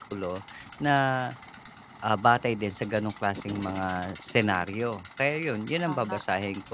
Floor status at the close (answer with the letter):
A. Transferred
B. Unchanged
B